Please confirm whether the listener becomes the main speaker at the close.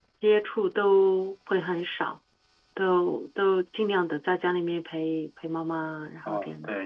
Yes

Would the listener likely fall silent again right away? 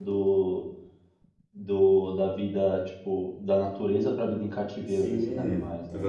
No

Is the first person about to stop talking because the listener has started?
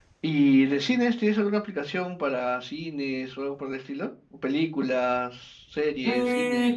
Yes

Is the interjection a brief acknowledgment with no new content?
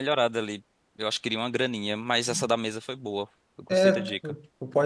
No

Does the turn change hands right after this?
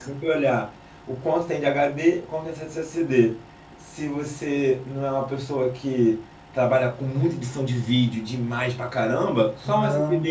No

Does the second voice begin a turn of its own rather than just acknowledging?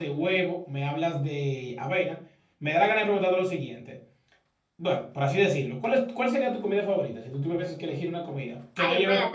Yes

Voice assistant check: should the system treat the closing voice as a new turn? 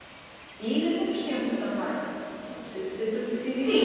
Yes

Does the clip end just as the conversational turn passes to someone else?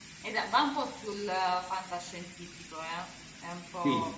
Yes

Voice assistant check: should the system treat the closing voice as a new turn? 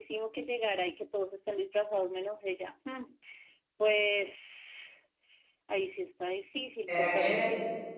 Yes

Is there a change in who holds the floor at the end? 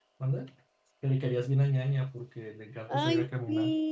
Yes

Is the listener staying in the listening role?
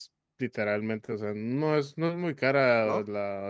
Yes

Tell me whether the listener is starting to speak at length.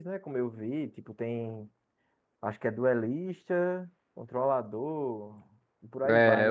Yes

